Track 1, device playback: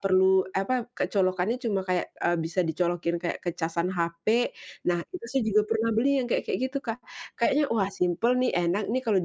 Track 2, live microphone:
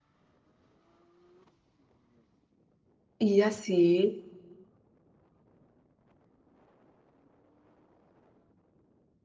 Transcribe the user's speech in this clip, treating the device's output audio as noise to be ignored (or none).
Iya, sih.